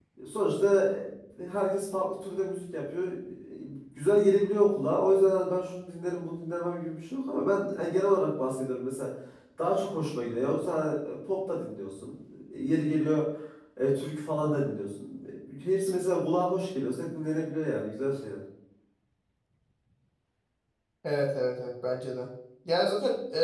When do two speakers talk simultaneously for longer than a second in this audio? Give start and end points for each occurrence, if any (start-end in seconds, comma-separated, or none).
none